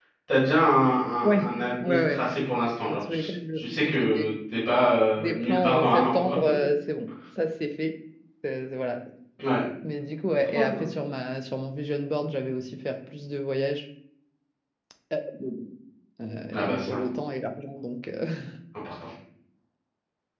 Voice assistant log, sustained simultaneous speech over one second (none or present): present